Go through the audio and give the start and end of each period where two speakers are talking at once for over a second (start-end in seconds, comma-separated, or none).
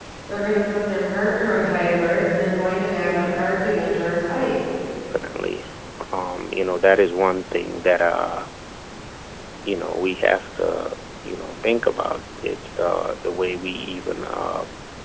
none